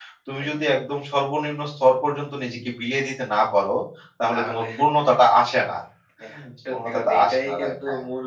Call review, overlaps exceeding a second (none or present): present